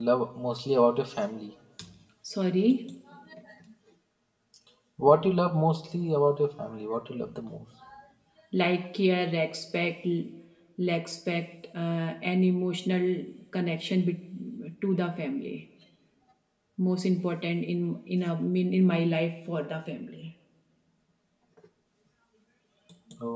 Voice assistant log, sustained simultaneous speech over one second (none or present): none